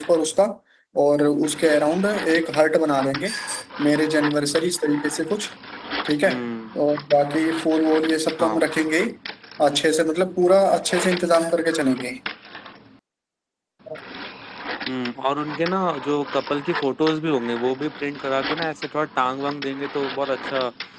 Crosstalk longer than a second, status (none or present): none